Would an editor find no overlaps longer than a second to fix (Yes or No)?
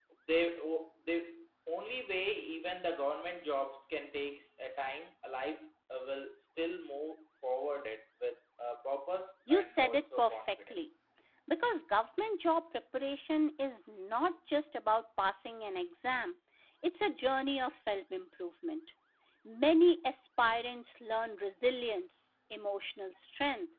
No